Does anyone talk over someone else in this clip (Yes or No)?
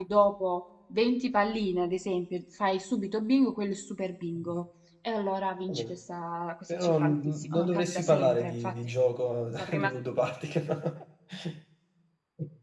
Yes